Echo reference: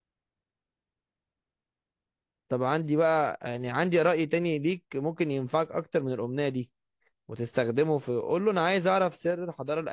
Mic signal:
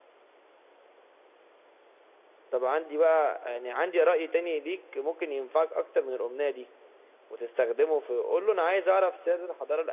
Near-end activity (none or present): none